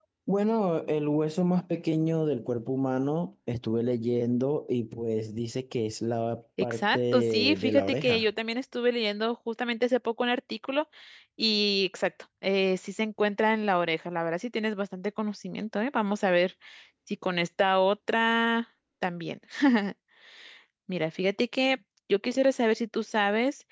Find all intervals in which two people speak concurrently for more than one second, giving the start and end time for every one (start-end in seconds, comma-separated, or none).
6.6-8.2